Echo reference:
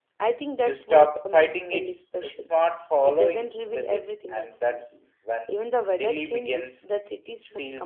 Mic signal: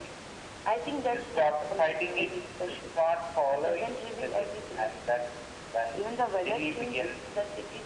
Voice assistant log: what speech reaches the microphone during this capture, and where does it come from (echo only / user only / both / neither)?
echo only